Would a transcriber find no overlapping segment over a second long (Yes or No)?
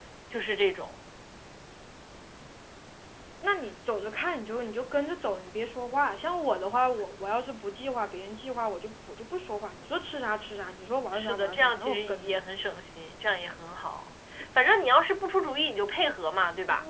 No